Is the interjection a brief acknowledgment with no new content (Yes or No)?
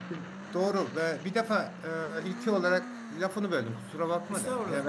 Yes